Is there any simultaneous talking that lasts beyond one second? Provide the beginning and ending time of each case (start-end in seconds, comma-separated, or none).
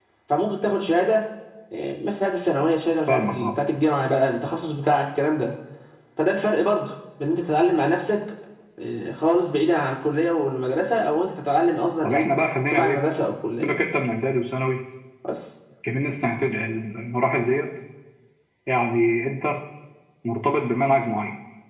none